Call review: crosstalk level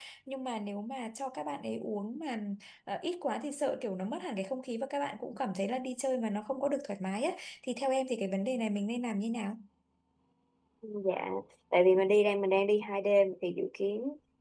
none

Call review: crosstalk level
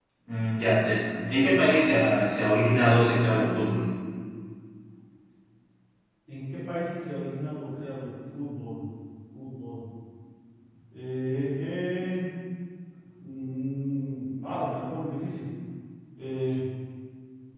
none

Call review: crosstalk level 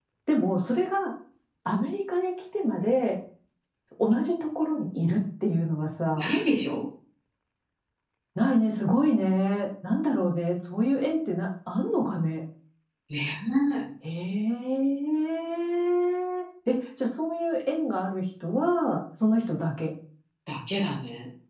none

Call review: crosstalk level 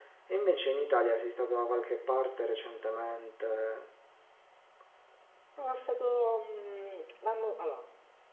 none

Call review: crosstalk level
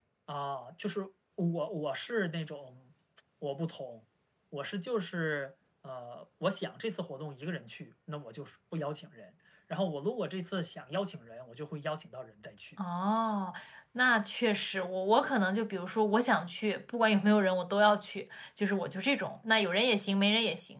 none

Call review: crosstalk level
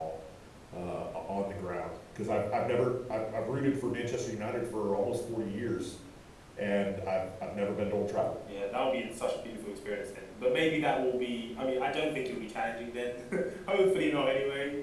none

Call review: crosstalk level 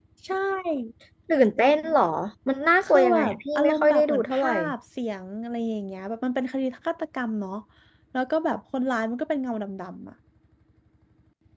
present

